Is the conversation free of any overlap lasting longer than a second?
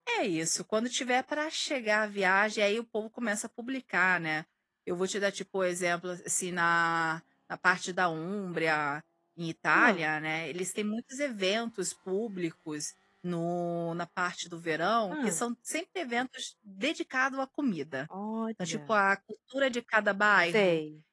Yes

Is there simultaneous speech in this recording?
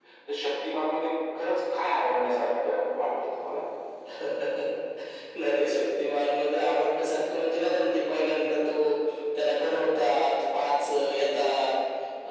No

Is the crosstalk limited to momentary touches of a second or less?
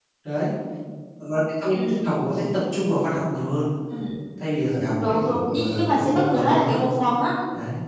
No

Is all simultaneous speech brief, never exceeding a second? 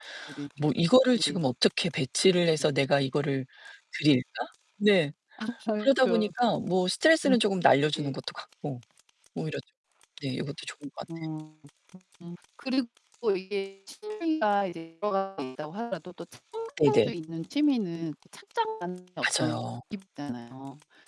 Yes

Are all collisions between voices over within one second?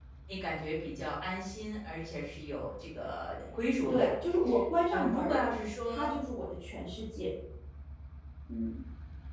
Yes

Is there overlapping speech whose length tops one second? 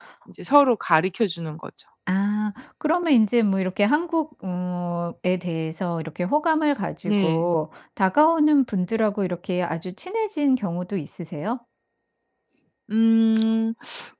No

